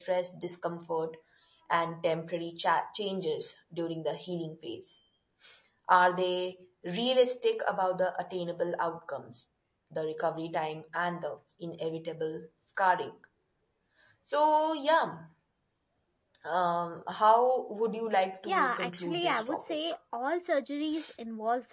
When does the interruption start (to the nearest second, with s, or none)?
18 s